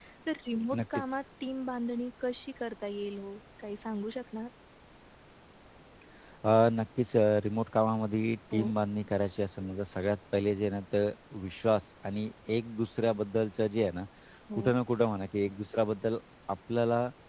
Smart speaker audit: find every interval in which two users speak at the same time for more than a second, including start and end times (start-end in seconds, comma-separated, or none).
none